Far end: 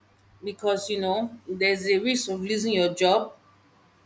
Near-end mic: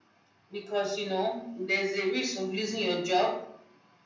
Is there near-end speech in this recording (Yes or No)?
No